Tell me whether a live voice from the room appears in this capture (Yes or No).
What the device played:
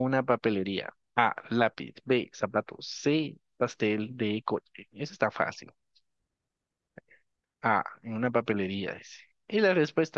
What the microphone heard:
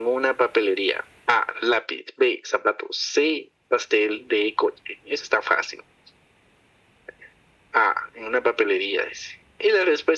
No